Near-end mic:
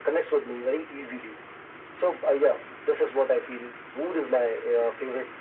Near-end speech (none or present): none